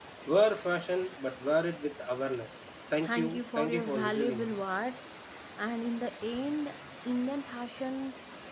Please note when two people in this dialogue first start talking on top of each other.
3.0 s

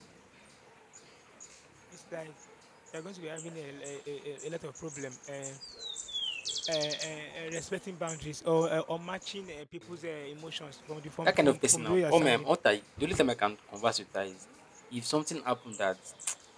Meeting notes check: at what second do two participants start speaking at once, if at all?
11.2 s

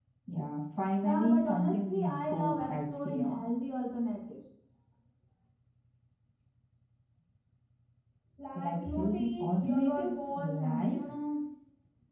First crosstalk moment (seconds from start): 1.0 s

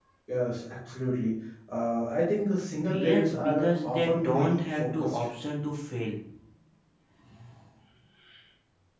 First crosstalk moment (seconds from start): 2.9 s

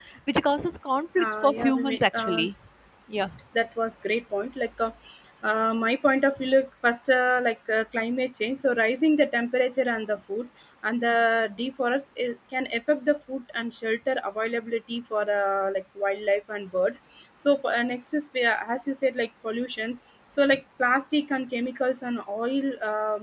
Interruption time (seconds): 1.2 s

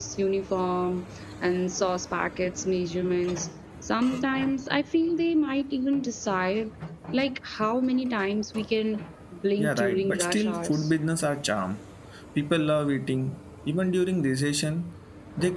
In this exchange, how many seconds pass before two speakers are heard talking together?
9.6 s

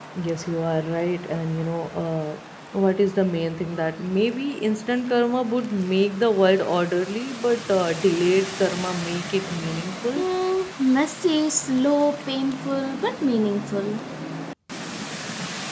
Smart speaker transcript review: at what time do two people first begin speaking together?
none

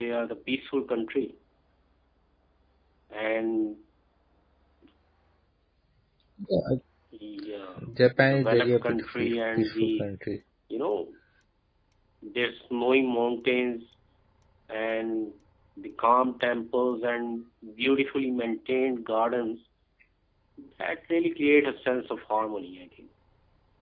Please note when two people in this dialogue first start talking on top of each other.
8.3 s

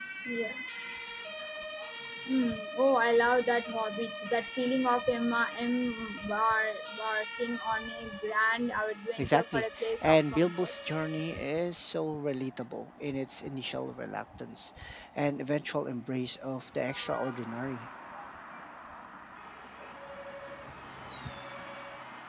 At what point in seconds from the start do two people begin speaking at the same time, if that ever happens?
9.2 s

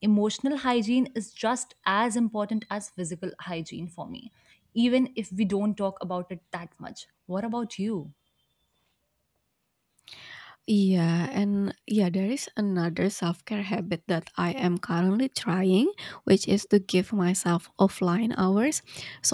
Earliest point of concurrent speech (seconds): none

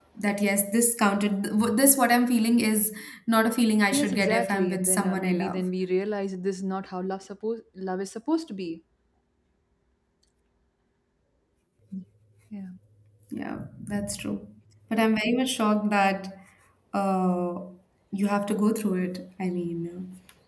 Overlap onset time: 3.9 s

